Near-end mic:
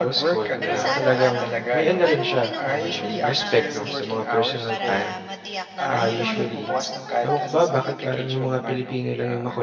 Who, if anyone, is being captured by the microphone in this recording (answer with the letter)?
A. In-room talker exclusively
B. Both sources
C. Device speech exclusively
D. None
B